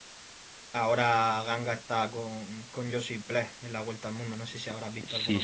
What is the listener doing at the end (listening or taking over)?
taking over